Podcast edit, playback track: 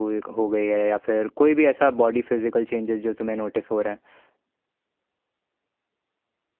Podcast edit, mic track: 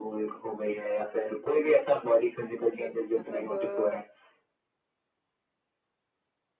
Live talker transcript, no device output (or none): हम्म। सर मतलब अ,